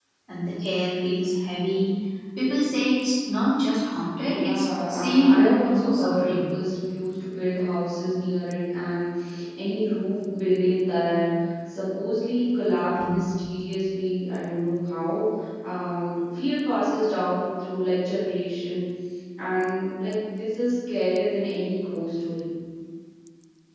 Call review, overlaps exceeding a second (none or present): present